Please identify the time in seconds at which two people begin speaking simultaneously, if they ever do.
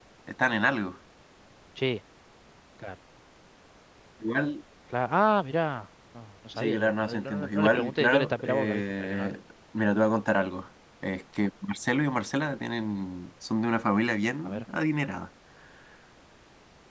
6.6 s

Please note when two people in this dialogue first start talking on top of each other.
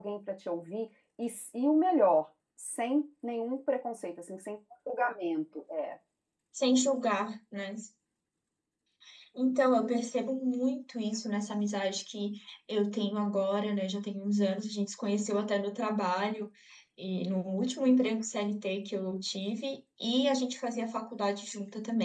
none

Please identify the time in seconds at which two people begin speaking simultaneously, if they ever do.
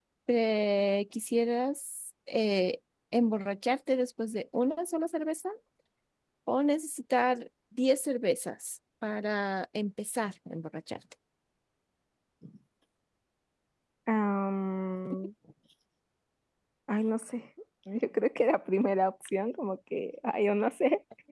none

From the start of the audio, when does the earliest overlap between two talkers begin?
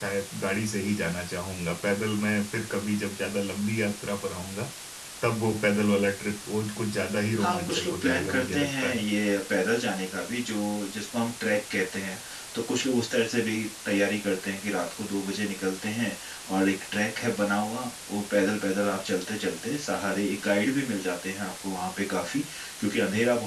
7.4 s

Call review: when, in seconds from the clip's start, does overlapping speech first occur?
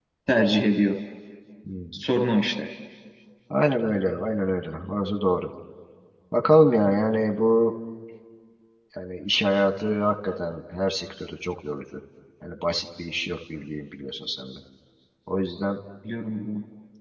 none

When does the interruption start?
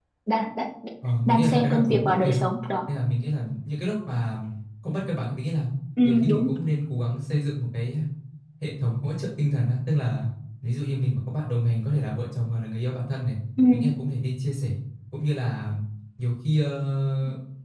1.3 s

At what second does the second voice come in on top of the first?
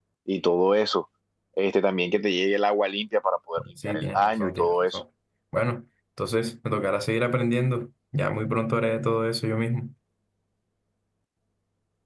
3.6 s

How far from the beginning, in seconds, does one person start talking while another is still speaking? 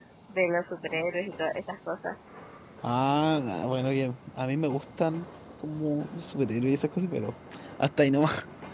none

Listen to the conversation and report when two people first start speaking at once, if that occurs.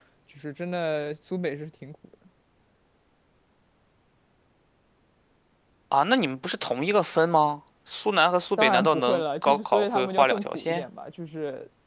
8.6 s

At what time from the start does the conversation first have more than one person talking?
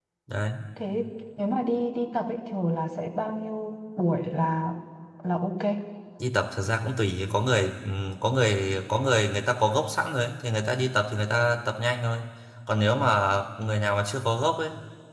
none

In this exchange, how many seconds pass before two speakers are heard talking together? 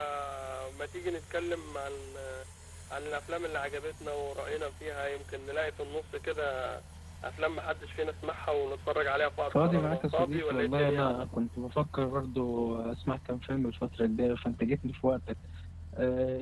9.5 s

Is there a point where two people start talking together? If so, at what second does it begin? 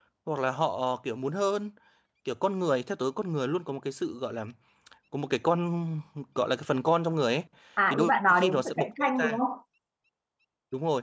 7.9 s

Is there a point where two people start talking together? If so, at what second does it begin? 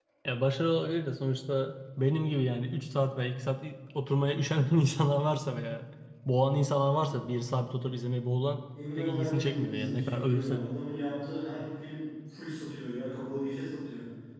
9.0 s

